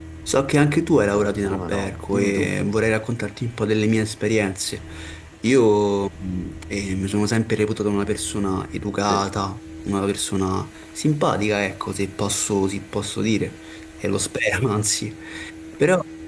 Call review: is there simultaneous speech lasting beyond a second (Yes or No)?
Yes